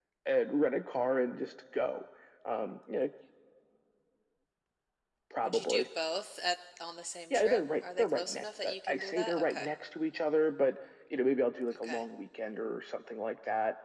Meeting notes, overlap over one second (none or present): present